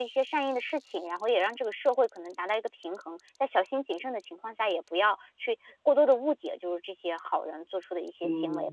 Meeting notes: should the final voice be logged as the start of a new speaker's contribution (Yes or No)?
Yes